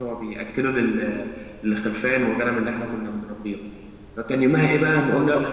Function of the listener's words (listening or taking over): listening